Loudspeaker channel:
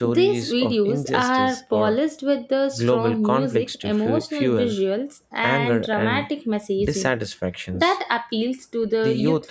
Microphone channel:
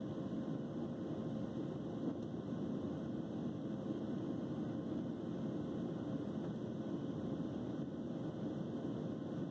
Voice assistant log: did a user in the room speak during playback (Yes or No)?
No